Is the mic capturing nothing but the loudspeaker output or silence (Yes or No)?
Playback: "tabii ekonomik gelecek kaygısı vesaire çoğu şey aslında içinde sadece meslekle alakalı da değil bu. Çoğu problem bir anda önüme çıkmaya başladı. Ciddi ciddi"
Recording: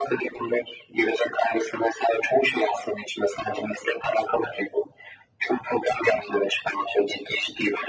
Yes